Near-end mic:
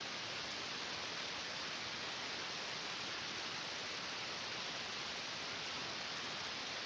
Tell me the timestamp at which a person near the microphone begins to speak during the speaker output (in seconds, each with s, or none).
none